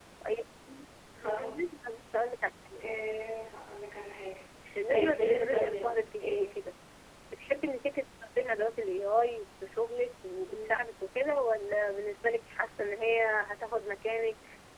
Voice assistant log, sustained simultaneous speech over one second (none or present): present